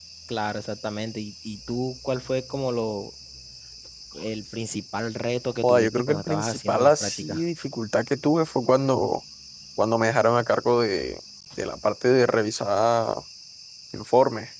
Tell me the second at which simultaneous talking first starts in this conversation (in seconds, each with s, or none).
5.6 s